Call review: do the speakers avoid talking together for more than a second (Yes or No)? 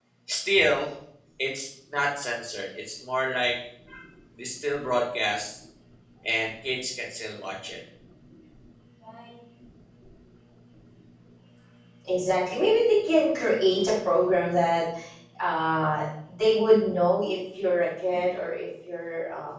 Yes